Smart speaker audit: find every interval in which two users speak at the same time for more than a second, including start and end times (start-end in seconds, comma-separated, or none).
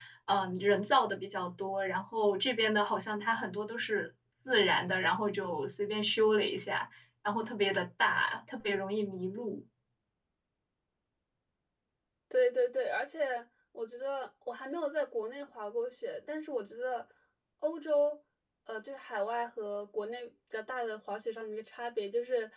none